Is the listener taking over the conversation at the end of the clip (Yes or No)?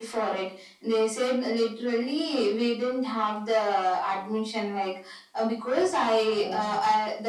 No